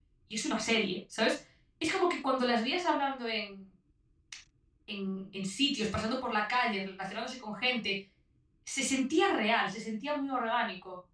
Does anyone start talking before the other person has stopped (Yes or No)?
No